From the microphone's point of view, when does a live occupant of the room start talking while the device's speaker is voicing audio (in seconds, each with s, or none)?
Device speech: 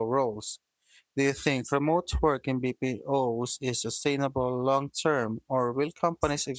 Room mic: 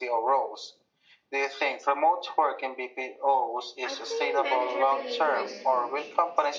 3.8 s